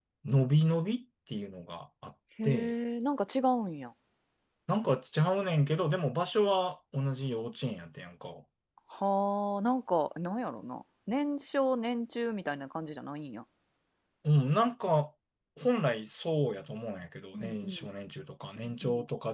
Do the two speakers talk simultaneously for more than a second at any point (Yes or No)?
No